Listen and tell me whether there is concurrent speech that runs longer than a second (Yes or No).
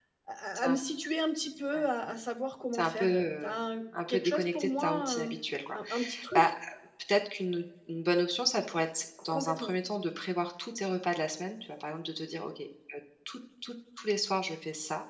Yes